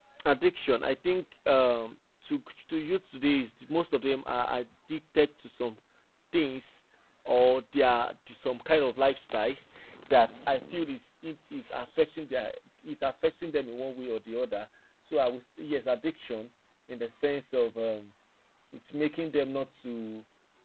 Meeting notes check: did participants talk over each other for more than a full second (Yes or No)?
No